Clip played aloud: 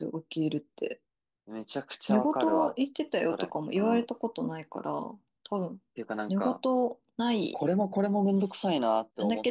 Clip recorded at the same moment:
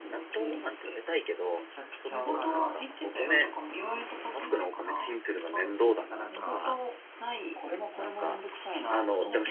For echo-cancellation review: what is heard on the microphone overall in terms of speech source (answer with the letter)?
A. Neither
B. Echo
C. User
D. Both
D